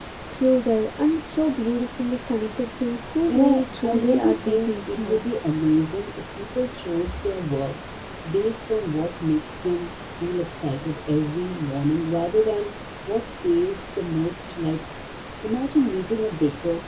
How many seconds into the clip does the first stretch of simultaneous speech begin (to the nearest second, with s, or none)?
3 s